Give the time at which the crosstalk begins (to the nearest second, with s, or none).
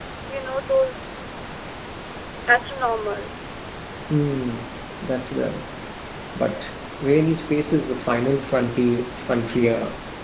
none